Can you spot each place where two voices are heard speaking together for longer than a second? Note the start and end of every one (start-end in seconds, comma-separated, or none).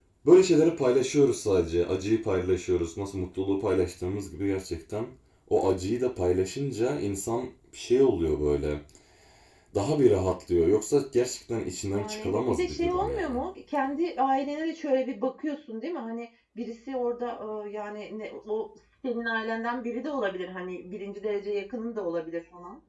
11.9-13.3